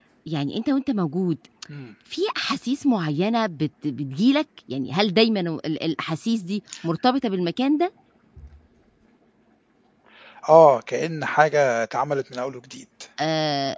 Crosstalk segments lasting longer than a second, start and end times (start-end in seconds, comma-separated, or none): none